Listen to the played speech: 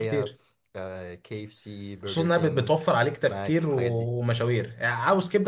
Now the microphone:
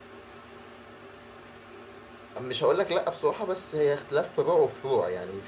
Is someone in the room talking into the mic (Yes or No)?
Yes